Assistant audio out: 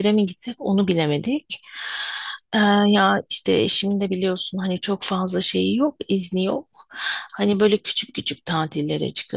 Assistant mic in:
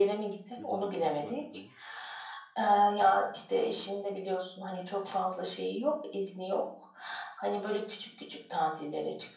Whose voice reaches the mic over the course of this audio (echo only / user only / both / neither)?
both